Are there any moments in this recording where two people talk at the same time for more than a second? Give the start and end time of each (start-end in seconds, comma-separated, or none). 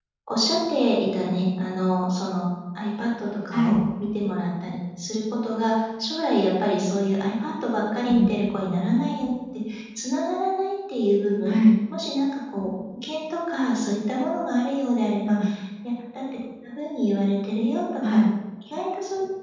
none